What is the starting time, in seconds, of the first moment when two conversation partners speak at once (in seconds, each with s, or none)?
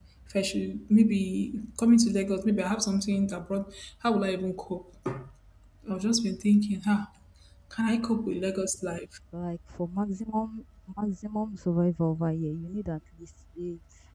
none